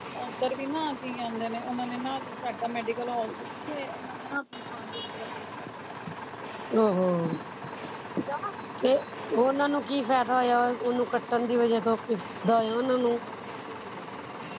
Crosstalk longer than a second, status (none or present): none